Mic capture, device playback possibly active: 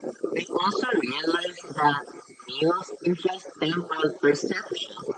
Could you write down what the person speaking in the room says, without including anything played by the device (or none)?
none